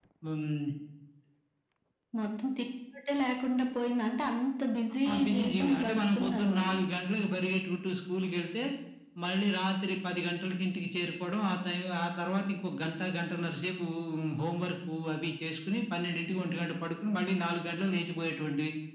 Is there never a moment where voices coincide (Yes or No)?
No